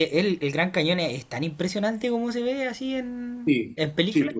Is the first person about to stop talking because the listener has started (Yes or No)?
Yes